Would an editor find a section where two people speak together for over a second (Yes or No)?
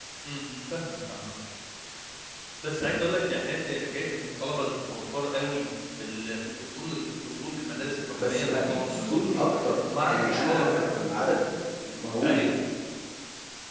Yes